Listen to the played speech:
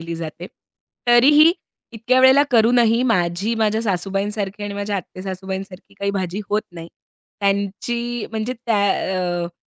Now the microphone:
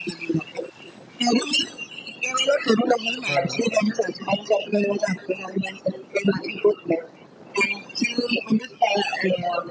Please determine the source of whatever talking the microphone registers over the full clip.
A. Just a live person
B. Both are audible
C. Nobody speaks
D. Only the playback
B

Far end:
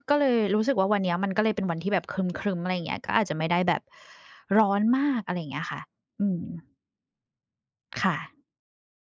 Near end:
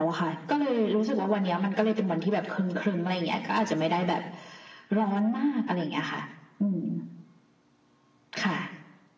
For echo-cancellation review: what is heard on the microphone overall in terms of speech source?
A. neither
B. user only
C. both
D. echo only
D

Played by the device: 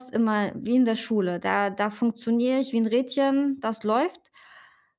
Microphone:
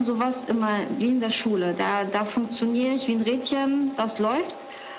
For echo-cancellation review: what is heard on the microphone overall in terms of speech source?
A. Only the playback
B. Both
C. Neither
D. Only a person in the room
A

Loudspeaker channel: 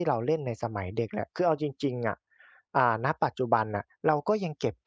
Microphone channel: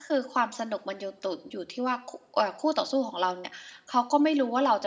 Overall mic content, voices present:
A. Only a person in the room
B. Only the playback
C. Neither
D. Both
A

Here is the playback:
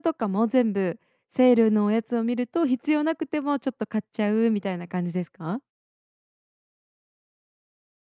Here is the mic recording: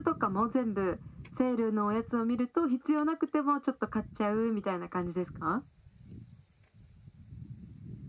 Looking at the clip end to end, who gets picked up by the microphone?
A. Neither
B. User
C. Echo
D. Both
C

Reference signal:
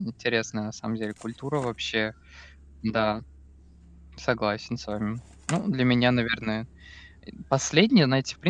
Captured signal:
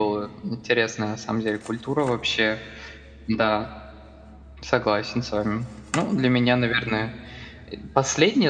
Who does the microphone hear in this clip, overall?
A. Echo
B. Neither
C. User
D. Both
A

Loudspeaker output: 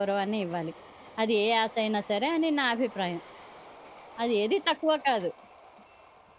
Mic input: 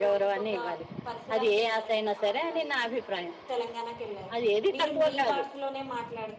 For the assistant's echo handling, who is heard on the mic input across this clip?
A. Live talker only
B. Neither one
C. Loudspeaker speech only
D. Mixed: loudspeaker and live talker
D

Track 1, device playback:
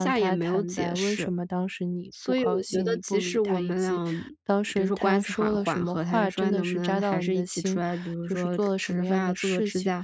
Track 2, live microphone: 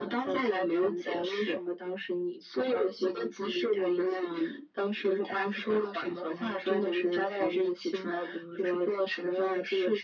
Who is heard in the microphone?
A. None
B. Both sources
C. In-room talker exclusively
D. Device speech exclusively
D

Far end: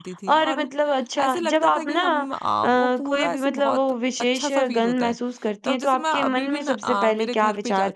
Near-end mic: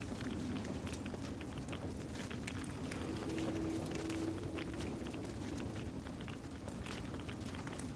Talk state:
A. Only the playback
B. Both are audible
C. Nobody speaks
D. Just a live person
C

